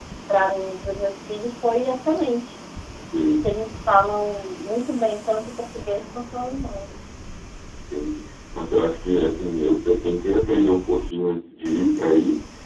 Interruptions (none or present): none